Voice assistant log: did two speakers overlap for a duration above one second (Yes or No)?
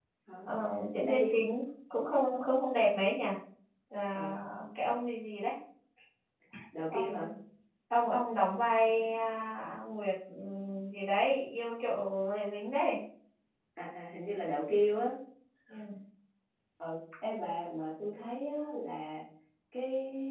No